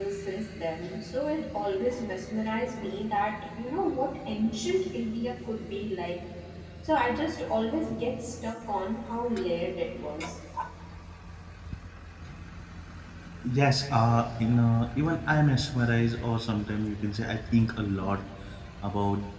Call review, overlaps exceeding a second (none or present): none